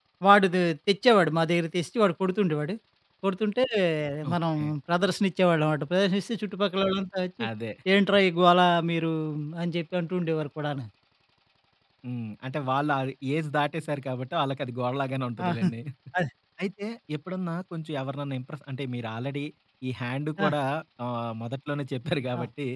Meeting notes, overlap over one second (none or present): none